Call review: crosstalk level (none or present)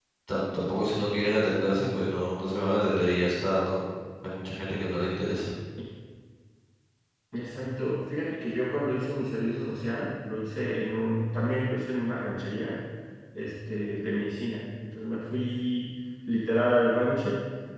none